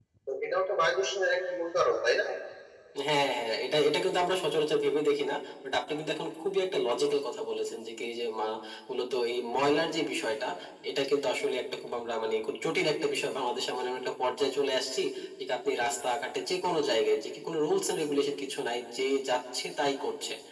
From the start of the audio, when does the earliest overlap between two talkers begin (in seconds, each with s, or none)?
none